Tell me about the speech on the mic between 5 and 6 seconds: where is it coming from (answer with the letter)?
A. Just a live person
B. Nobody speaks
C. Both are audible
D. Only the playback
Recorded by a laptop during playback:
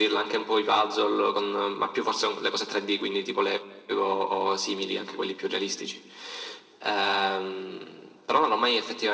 D